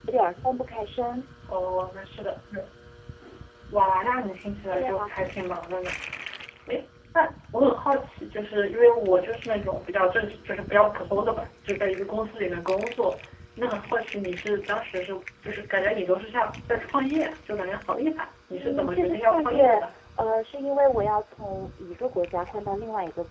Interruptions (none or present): present